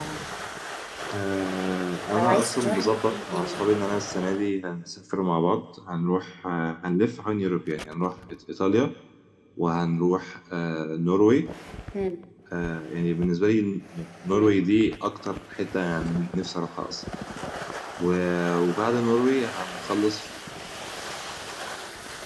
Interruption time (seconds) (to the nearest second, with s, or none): 2 s